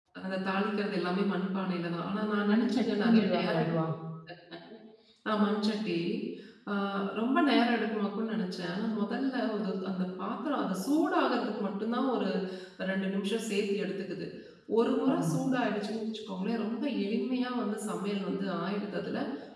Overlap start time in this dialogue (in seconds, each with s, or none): 2.5 s